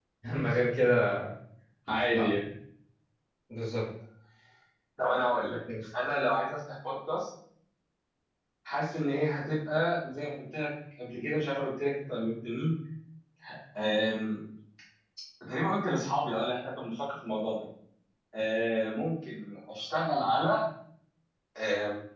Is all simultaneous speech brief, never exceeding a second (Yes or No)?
Yes